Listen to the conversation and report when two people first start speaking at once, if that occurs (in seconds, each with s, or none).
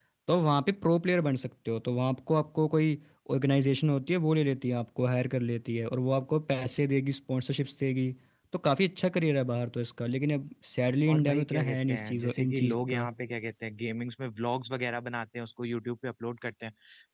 11.1 s